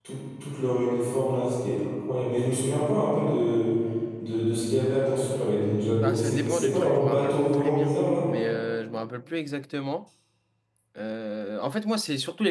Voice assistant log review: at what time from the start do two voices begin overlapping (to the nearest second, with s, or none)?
6 s